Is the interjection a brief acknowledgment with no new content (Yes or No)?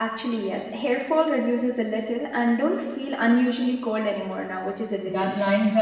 No